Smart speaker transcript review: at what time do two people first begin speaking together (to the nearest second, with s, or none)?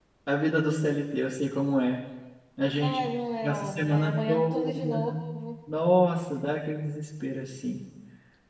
3 s